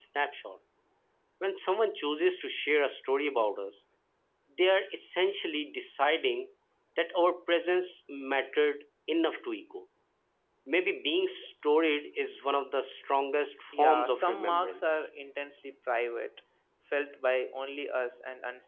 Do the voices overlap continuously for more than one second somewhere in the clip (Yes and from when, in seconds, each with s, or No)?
Yes, from 13.7 s